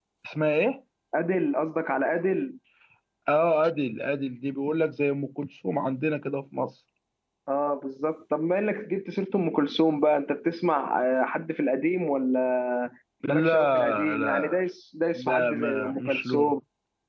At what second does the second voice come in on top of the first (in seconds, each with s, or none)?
13.3 s